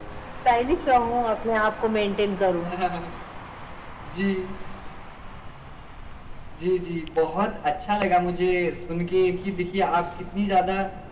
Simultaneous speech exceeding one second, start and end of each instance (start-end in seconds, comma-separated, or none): none